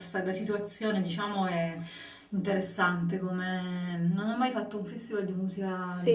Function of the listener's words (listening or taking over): taking over